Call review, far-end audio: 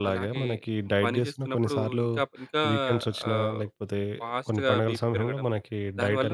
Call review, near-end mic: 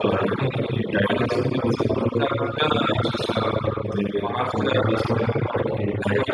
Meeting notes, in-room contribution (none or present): none